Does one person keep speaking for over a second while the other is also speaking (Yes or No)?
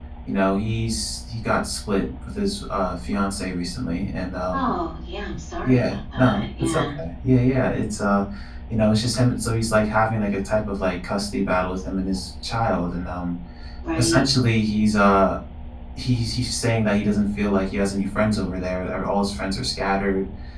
Yes